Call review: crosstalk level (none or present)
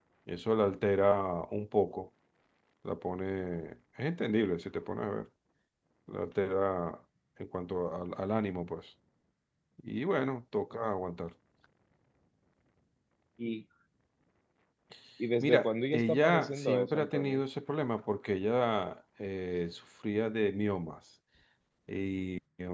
present